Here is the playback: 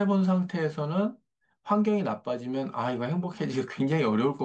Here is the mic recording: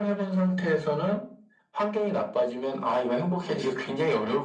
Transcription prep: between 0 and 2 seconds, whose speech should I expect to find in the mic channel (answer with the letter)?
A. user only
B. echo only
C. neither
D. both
B